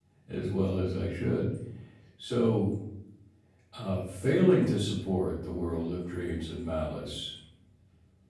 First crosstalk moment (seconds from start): none

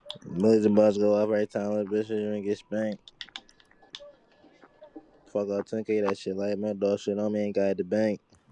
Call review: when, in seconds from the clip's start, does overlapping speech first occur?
none

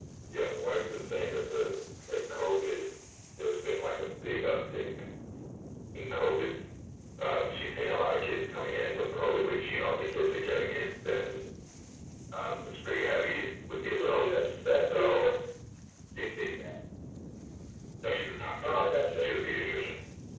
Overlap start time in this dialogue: 14.0 s

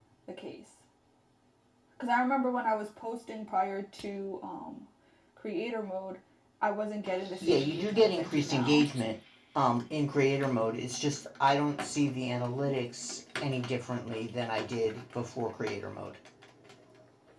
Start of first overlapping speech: 7.4 s

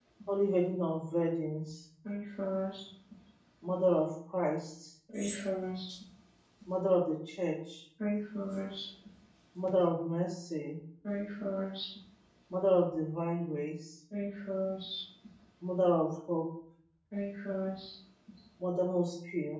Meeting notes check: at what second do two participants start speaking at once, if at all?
none

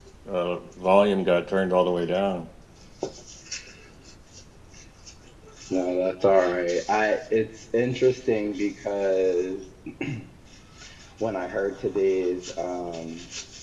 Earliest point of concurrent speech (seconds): none

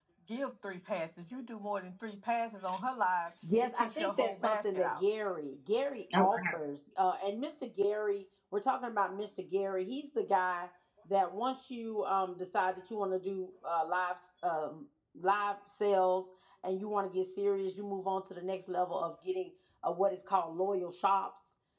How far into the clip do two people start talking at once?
3.6 s

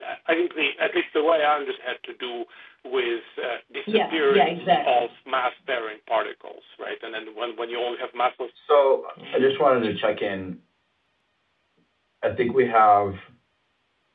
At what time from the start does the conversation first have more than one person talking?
3.9 s

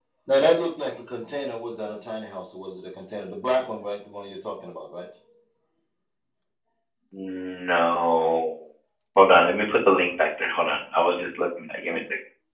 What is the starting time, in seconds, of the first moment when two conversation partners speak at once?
none

